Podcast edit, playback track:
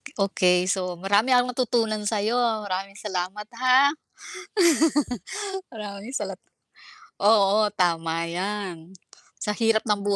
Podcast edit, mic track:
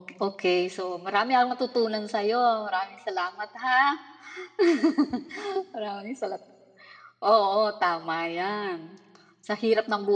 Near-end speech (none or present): none